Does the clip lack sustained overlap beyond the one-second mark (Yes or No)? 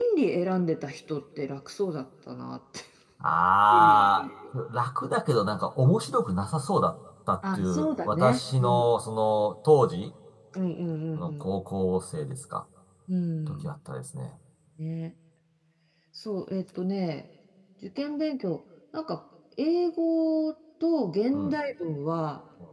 No